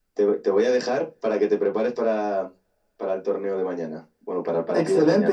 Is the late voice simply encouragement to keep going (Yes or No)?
No